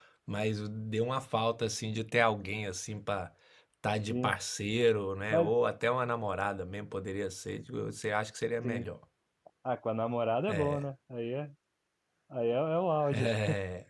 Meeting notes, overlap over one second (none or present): none